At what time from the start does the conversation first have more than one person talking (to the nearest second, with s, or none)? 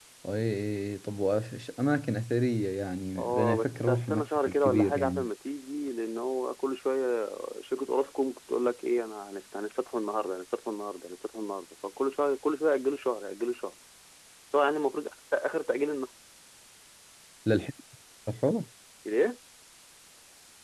3 s